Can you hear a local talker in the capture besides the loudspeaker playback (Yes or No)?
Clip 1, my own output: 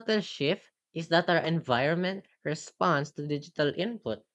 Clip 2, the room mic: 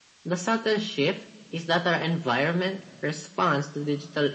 No